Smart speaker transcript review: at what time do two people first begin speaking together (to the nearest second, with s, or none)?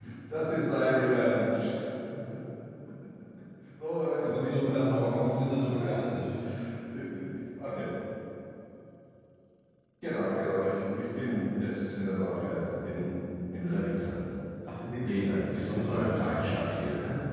4 s